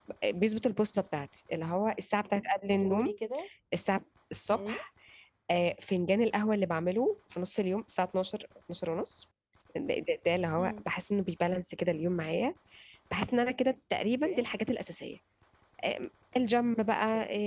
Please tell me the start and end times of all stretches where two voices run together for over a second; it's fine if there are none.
none

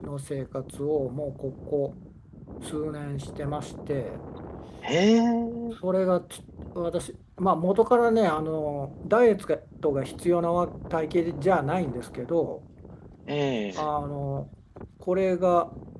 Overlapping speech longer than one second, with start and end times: none

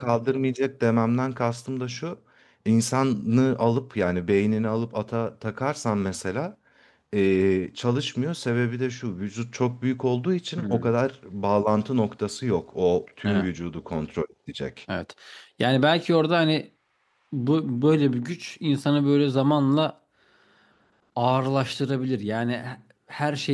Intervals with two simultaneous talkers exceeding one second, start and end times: none

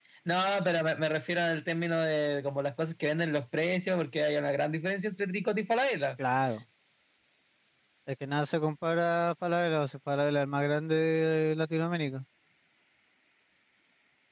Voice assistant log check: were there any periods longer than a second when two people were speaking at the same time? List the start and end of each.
none

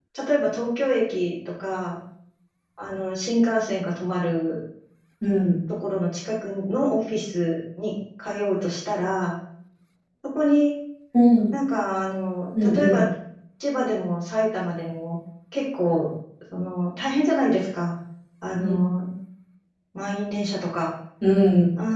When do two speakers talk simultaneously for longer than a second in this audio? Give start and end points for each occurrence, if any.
none

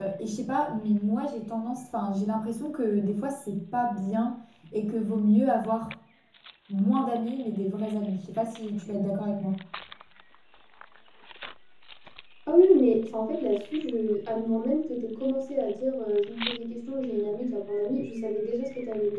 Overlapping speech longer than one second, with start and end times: none

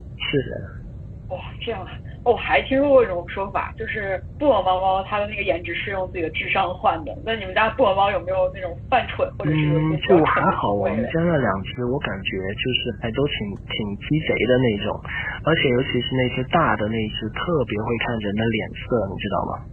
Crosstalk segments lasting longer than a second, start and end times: 9.4-11.1

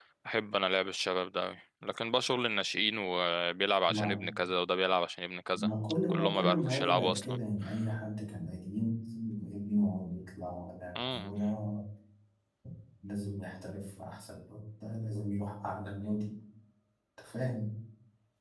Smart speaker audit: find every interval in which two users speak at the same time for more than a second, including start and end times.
6.1-7.4

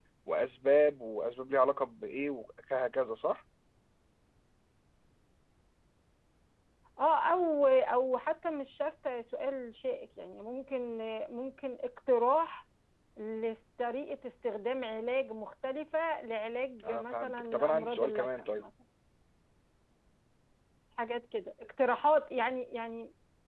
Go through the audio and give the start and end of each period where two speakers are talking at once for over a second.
16.8-18.6

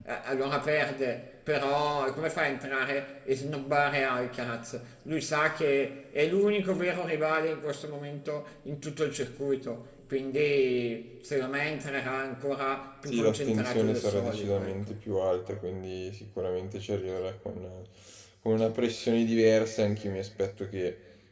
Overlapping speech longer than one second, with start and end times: 13.1-15.1

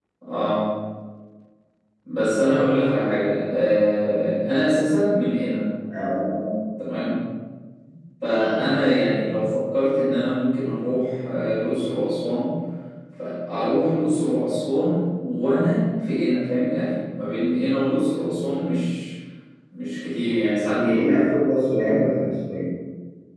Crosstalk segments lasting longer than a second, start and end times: none

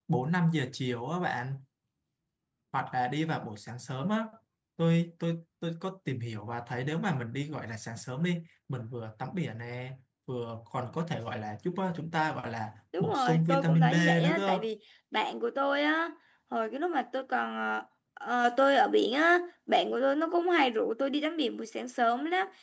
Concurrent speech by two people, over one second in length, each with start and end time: 13.0-14.6

